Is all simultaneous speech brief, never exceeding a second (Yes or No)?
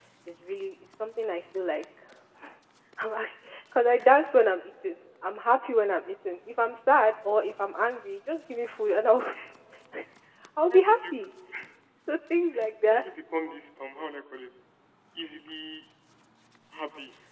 Yes